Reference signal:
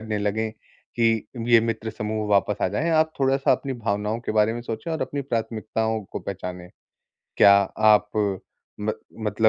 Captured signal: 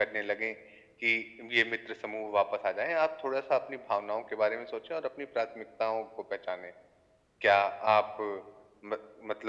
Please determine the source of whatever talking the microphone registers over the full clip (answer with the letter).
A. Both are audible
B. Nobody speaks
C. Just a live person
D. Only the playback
D